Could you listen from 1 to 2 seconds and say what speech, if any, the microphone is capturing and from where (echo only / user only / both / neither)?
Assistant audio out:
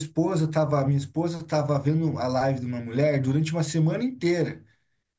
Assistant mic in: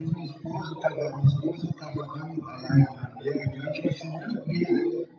echo only